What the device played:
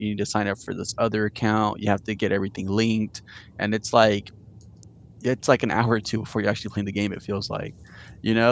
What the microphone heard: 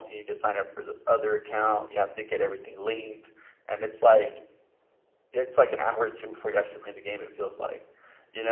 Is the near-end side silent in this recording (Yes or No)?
Yes